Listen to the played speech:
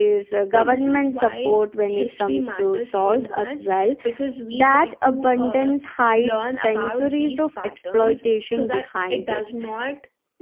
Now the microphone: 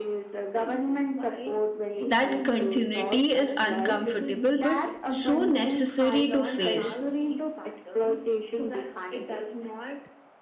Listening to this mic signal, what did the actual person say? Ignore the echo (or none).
that continuity is uncomfortable but so necessary to face